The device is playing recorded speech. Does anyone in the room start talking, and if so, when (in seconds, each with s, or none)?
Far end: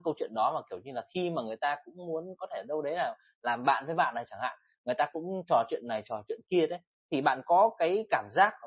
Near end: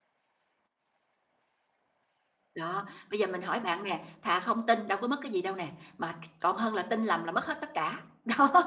2.5 s